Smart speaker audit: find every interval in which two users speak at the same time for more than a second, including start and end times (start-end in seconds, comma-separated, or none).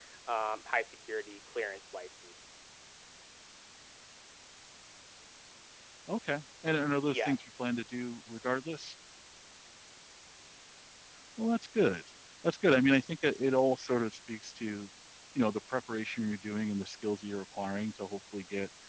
none